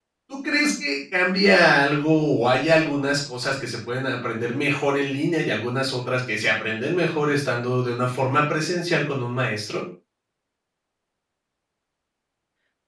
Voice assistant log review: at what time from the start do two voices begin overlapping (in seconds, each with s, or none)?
none